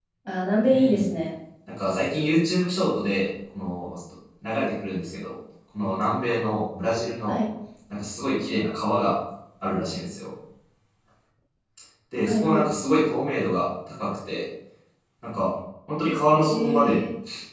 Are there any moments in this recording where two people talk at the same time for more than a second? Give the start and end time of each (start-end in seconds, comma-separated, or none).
none